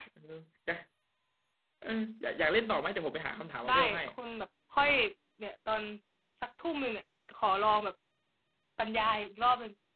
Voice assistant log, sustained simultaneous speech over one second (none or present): none